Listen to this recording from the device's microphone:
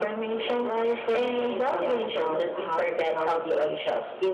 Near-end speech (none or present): none